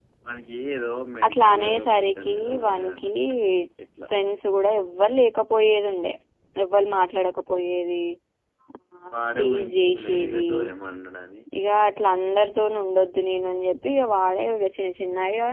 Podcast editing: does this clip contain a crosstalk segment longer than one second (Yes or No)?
Yes